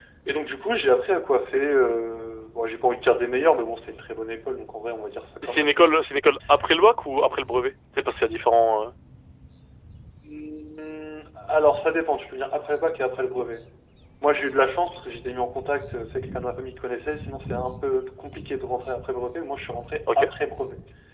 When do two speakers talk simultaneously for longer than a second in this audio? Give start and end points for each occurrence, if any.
none

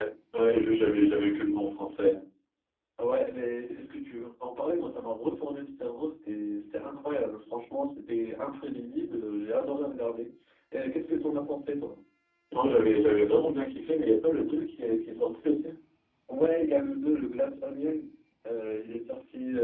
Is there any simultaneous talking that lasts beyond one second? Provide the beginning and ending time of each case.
none

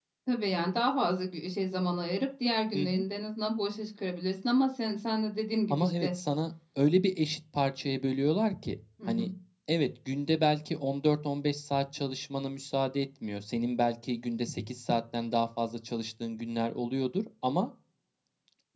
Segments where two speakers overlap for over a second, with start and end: none

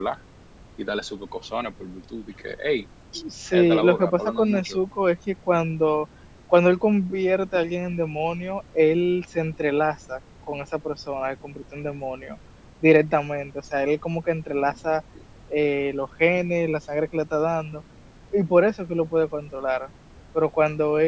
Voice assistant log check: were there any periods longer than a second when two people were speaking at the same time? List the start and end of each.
3.5-4.8

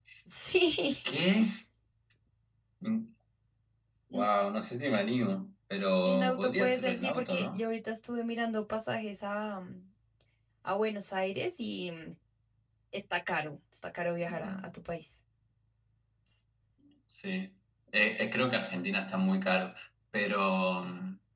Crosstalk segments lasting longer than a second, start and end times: 6.0-7.6

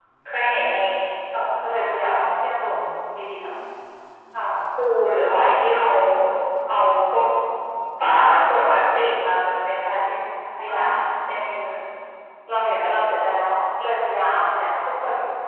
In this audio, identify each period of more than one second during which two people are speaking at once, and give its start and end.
none

